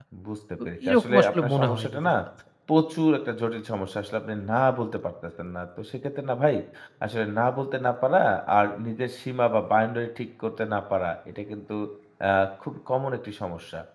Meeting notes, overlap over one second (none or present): present